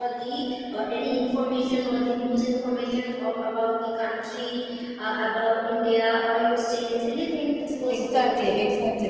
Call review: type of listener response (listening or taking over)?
taking over